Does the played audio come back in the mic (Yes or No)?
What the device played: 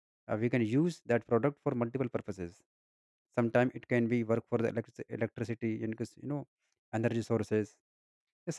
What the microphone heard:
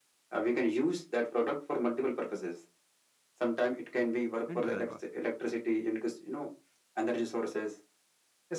Yes